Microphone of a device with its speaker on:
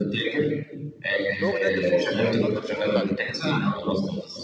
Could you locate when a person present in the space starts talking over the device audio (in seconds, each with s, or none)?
1.4 s